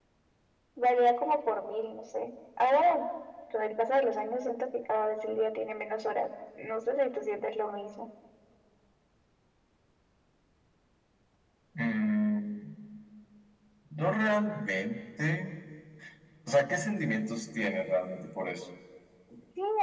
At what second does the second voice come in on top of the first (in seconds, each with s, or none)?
none